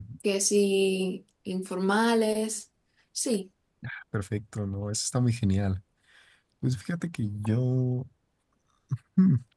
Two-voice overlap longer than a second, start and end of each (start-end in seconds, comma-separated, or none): none